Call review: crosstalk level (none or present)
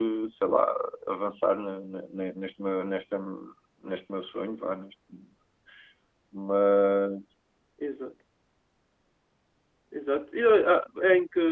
none